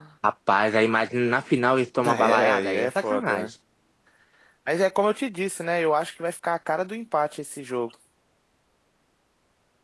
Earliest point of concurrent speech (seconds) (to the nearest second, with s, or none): 2 s